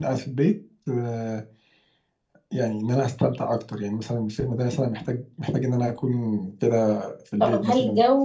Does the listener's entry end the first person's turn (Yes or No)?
Yes